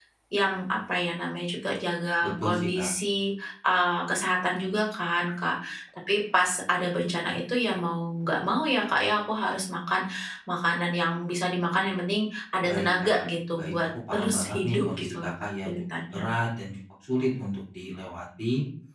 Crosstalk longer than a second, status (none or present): present